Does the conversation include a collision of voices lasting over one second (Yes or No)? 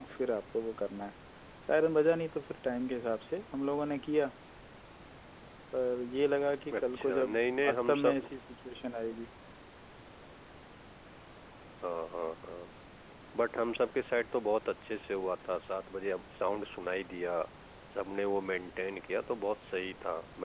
Yes